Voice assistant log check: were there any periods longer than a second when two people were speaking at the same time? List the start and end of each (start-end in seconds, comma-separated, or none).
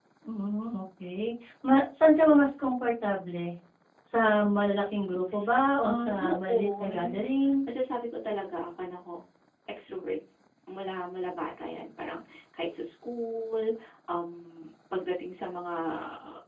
5.8-7.5